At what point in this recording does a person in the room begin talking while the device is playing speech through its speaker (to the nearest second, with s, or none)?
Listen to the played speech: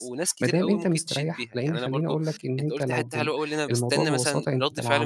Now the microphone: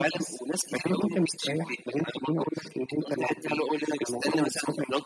none